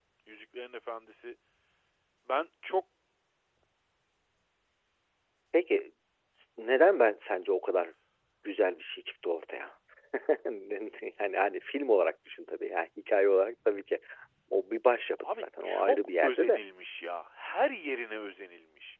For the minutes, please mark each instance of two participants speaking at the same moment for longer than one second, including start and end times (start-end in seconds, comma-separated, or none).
15.2-16.6